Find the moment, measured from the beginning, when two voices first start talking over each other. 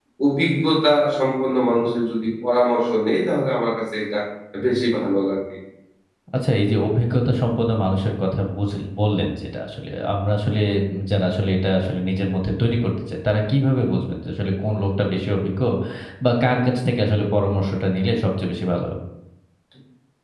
none

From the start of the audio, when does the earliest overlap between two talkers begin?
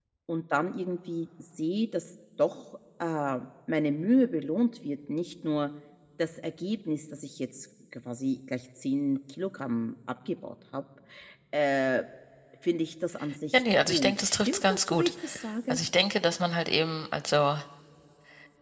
13.5 s

